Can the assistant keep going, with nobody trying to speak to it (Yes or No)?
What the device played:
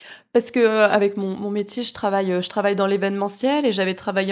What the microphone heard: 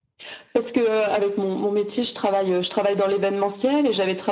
Yes